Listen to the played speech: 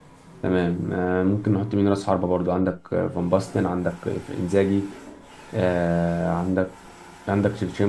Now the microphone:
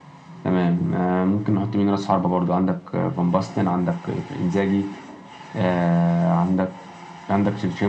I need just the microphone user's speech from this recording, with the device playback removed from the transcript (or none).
none